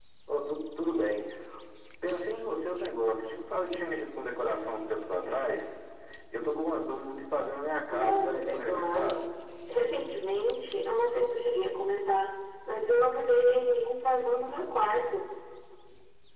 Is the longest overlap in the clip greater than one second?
Yes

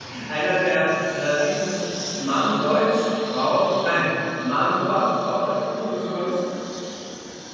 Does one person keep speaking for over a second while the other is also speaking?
No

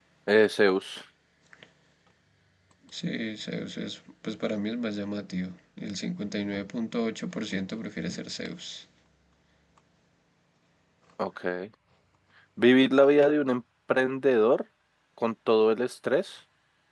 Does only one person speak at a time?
Yes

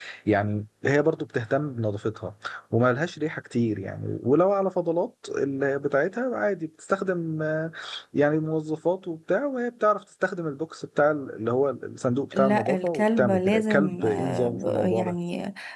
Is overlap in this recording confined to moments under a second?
No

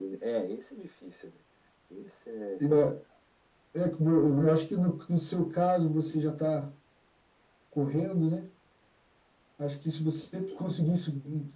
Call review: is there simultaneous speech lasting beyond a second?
No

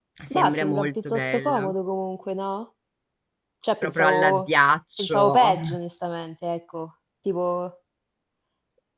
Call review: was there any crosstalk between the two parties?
Yes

